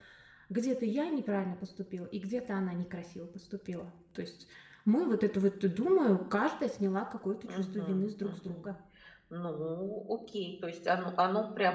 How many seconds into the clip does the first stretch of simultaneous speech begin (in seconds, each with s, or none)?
7.4 s